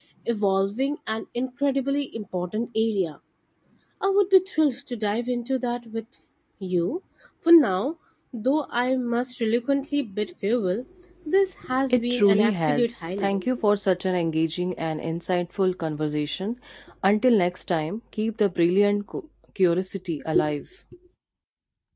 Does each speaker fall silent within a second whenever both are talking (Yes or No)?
No